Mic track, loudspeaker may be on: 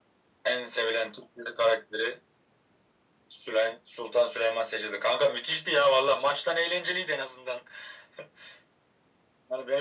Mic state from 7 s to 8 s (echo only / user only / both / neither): echo only